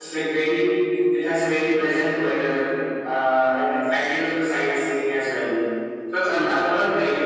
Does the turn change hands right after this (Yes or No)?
No